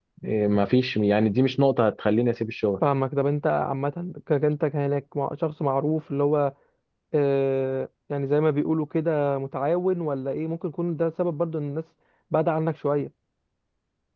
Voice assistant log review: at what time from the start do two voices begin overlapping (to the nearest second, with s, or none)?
none